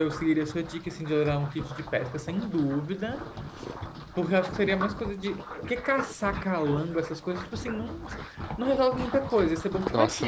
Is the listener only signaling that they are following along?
Yes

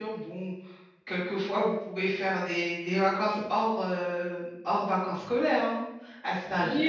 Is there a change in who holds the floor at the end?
Yes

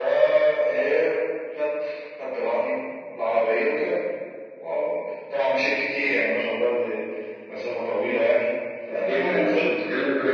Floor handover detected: Yes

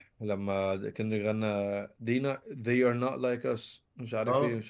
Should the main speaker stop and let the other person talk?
Yes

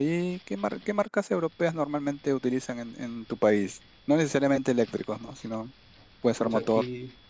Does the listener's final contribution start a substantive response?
Yes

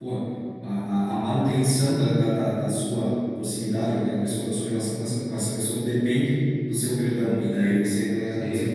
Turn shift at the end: No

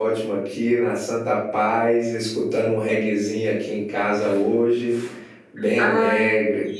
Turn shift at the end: Yes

